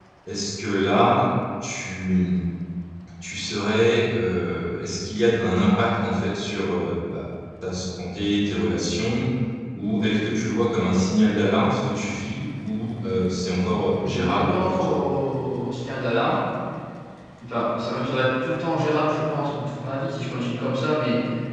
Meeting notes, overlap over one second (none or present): present